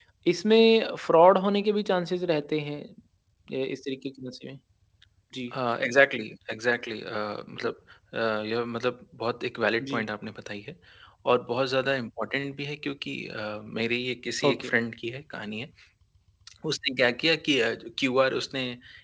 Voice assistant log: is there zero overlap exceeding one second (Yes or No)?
Yes